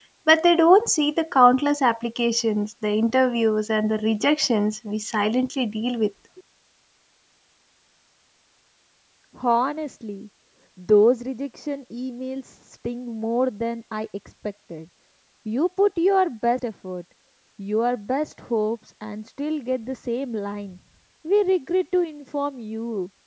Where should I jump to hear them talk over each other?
none

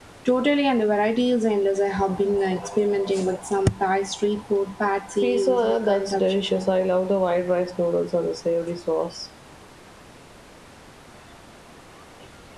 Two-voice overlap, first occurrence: 5.2 s

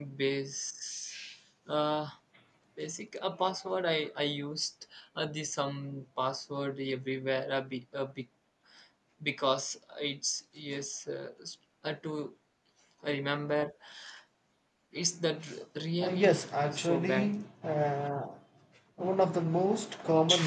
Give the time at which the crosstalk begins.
16.0 s

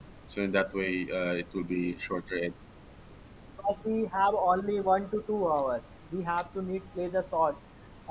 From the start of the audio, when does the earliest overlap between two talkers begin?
none

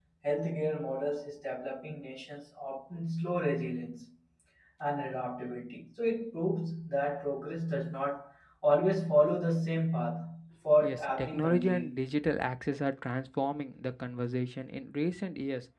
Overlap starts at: 10.8 s

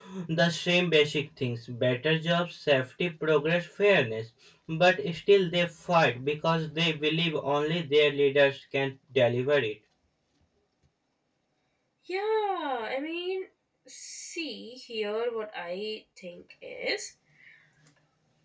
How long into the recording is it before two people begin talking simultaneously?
none

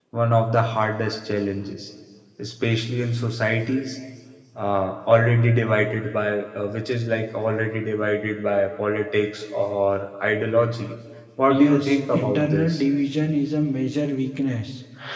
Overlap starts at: 11.5 s

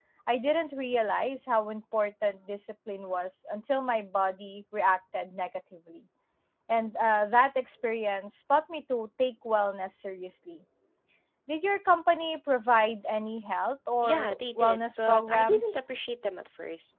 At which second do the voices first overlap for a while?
14.0 s

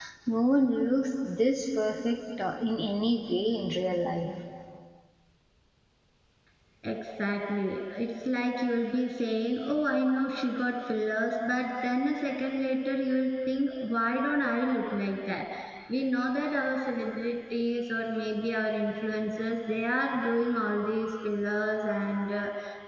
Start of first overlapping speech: none

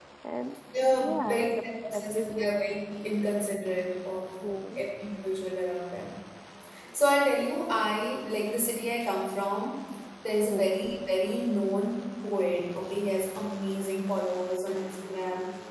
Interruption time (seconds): 1.0 s

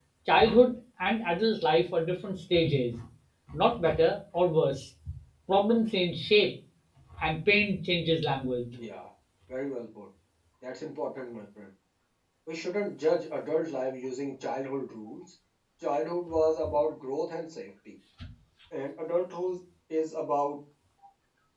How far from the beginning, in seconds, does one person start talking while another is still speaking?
none

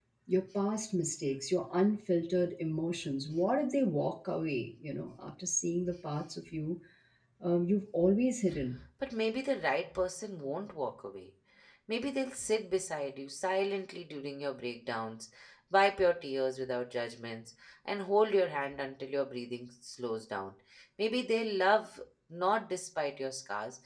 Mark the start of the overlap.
none

